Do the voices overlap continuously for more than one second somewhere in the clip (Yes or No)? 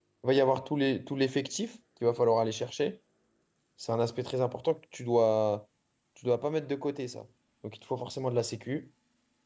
No